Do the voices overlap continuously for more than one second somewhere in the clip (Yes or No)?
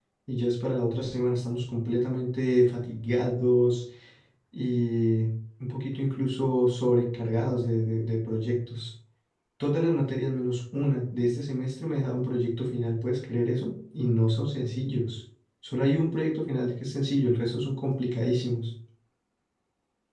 No